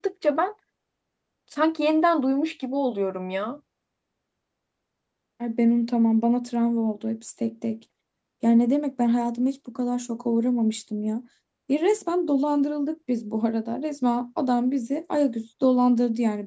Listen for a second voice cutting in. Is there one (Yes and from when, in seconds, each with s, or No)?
No